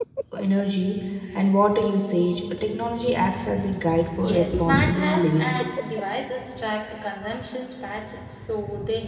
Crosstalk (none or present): present